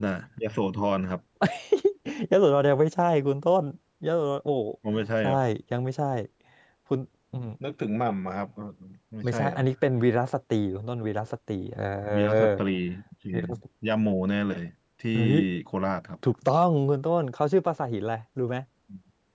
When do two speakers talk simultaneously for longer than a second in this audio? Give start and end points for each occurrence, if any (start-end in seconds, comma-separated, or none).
none